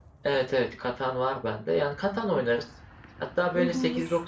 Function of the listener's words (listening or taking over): listening